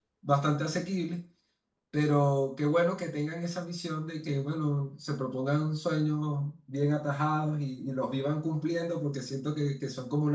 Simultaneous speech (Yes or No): No